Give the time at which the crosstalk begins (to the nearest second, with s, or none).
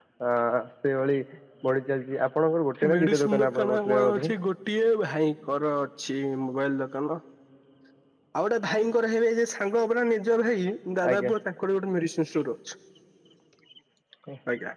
3 s